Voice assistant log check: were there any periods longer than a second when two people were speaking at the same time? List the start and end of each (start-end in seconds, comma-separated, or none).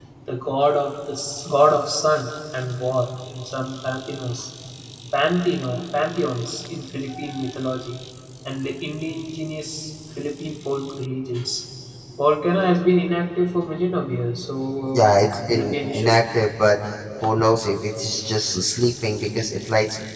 14.9-16.2